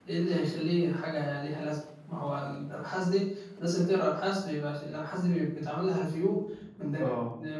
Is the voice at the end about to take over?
No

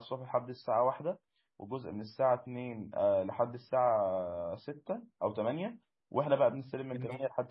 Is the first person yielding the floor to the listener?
No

